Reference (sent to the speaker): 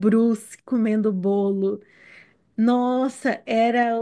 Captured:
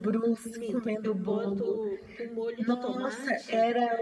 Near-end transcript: minto, eu boto o molho de tomate

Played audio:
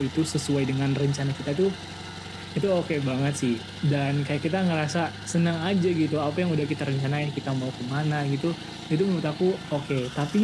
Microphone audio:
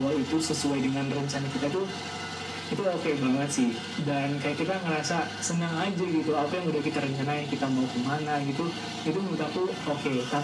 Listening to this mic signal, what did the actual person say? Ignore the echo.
none

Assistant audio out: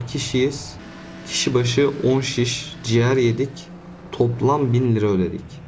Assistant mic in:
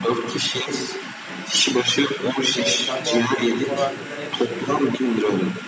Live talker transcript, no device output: E, sen bu, hak- bu konu hakkında ne düşünüyorsun?

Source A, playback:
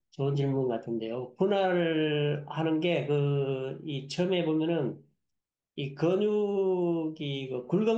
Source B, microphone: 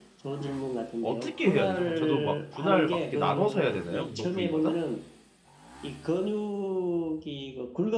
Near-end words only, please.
어떻게 해야 되죠? 그럼 저도 막 분할 막 이렇게 나눠서 해야 되나요? 운동 부위마다?

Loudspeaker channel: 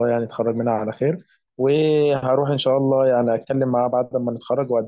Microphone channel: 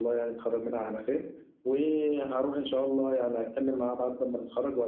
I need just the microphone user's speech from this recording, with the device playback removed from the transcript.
none

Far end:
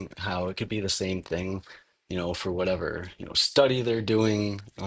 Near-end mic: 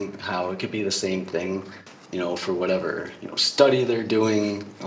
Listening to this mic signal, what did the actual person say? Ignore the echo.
none

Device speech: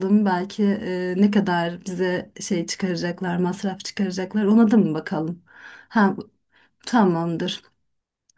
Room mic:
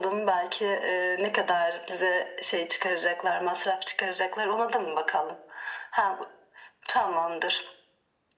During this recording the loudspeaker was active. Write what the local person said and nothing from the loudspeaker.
none

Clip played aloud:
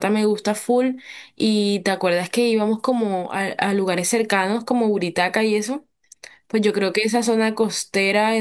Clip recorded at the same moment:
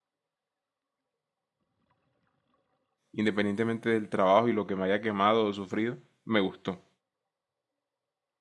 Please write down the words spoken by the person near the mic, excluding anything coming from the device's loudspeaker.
independientemente del trabajo y lo que me haya quemado o sufrido, me gustó.

